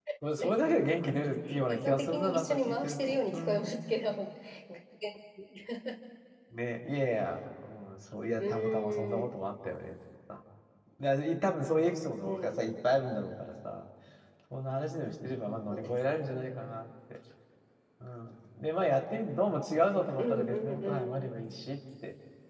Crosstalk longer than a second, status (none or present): present